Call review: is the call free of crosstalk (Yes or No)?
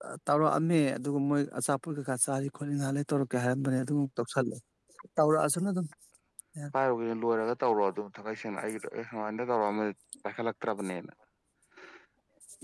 Yes